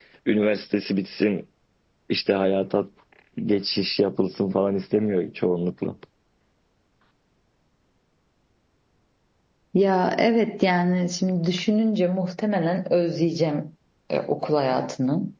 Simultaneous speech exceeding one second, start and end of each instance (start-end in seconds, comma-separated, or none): none